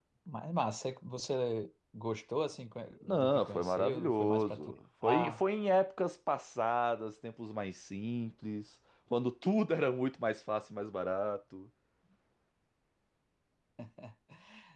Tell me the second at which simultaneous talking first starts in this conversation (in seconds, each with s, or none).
3.0 s